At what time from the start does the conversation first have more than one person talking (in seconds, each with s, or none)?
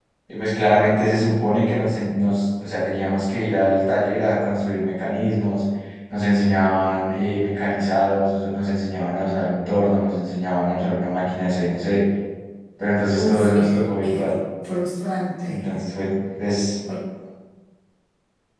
13.1 s